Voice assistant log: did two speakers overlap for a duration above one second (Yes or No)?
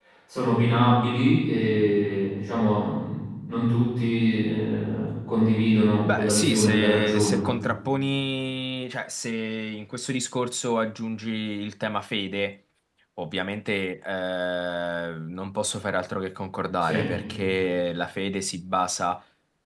Yes